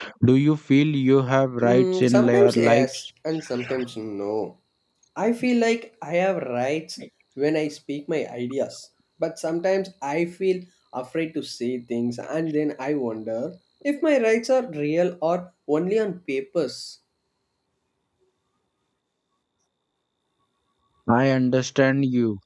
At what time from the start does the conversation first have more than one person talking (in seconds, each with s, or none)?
1.6 s